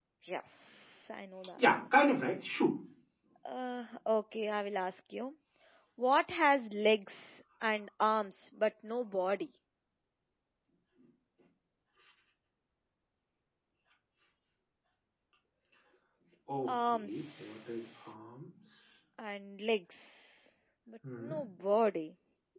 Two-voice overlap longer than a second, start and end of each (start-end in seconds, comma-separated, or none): 16.7-18.1